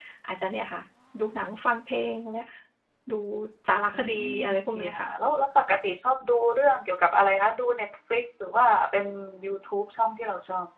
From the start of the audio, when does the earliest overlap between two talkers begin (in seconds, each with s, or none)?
3.9 s